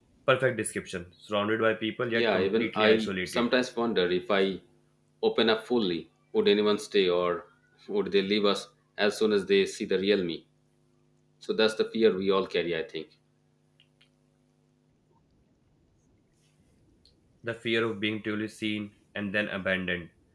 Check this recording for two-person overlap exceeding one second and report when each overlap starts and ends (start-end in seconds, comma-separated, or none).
2.1-3.5